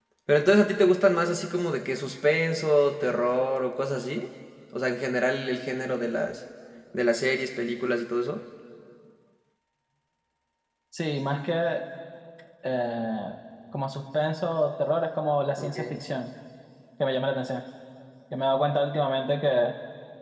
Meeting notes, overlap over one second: none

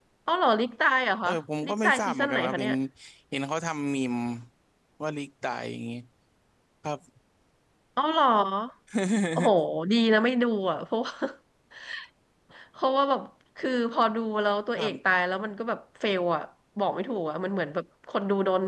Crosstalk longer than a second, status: present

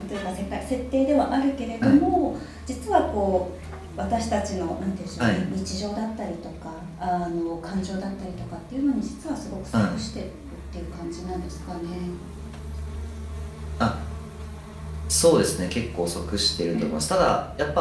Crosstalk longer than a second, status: none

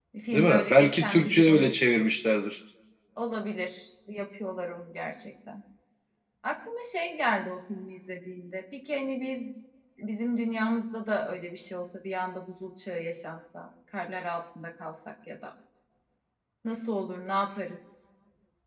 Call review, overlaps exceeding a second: present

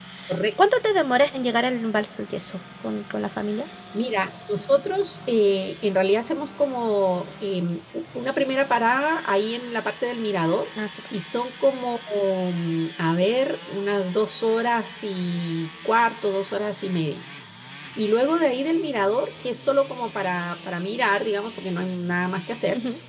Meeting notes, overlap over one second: none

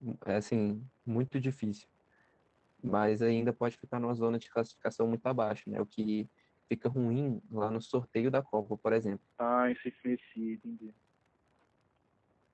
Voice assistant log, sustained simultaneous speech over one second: none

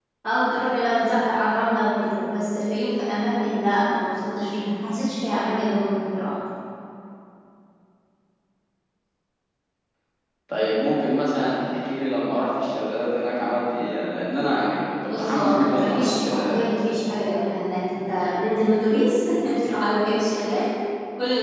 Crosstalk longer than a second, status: present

